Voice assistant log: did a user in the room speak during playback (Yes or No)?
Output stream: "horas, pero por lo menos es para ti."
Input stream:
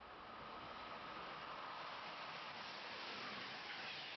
No